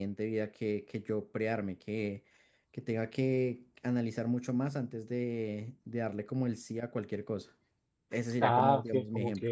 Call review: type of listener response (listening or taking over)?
taking over